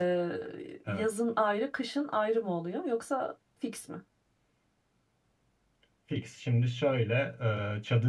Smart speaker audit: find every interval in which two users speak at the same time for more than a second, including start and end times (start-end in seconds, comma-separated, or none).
none